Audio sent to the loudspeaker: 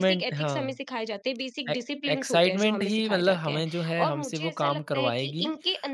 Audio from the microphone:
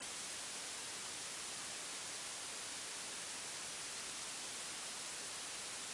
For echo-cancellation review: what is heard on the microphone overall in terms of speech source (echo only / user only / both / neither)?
neither